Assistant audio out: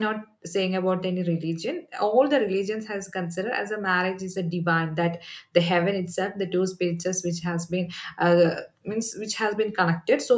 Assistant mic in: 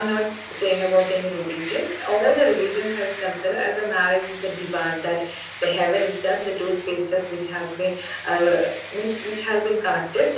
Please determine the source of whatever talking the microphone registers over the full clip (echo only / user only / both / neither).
echo only